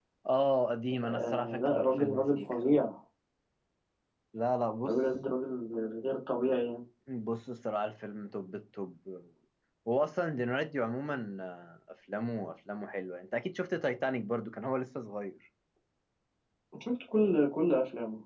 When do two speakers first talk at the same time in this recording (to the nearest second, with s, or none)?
1 s